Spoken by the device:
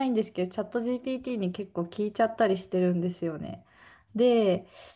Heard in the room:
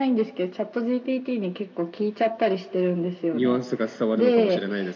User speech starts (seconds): 3.3 s

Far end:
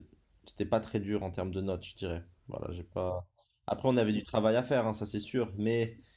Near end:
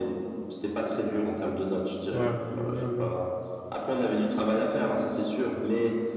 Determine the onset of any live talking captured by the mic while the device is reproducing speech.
2.1 s

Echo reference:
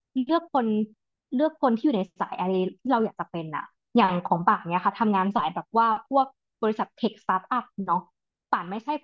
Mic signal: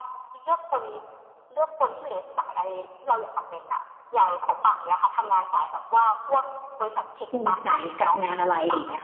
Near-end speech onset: 7.3 s

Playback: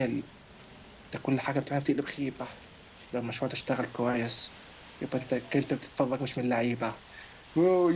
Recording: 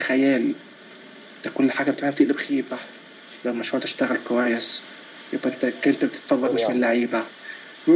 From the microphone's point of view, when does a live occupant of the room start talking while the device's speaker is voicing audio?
6.4 s

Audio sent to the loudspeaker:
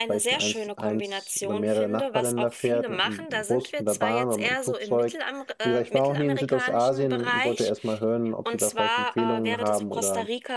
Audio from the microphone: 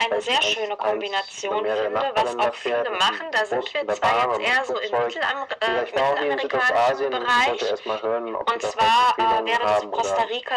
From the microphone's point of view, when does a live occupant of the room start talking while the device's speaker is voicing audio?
none

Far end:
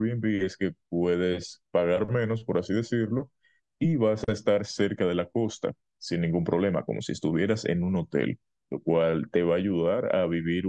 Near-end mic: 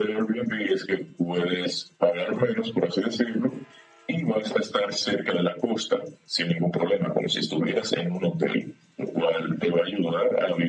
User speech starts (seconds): none

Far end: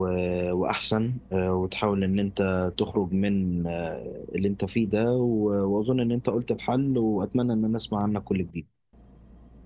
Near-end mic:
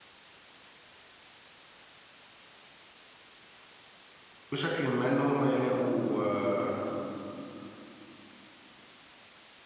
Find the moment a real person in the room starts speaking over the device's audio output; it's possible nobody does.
4.5 s

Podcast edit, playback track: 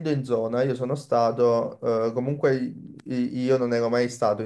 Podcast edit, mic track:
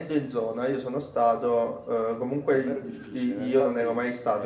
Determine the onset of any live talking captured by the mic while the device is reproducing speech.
2.5 s

